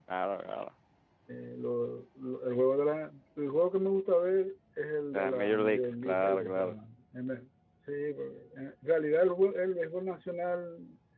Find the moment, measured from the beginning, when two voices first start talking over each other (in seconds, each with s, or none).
5.1 s